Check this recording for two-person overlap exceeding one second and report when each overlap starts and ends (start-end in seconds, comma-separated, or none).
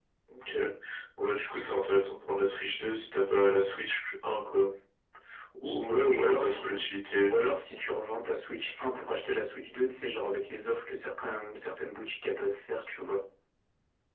5.6-6.8